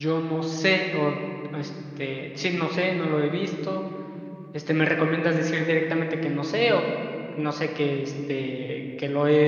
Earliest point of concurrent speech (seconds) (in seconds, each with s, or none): none